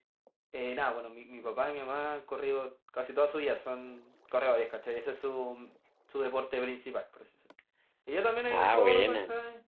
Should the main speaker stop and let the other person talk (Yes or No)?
No